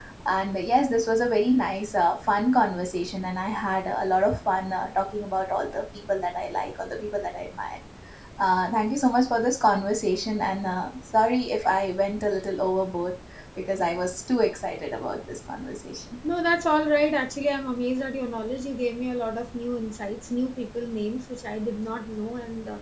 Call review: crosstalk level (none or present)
none